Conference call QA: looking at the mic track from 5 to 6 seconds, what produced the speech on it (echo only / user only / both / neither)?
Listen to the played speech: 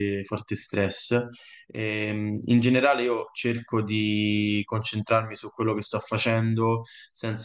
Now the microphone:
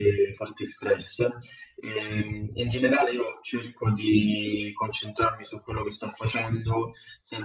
echo only